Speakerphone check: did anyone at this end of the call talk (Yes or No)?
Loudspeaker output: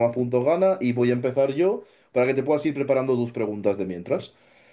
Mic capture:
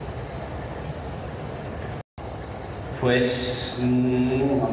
Yes